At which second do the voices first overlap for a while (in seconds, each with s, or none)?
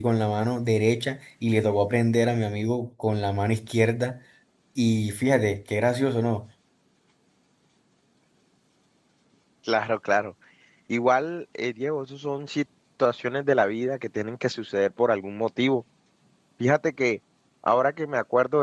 none